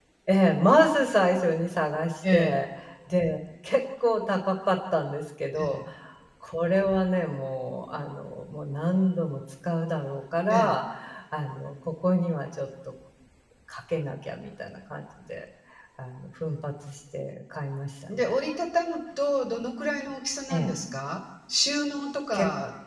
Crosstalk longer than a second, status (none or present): none